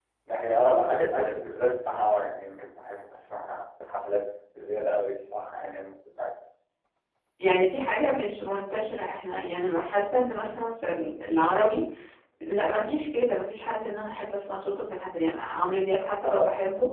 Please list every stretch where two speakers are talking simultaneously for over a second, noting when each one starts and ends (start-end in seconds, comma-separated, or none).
none